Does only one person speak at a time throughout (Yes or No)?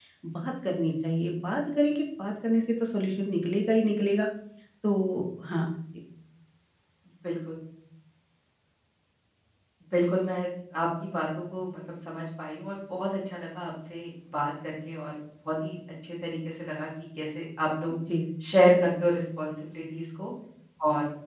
Yes